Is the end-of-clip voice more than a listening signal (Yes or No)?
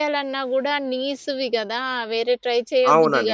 Yes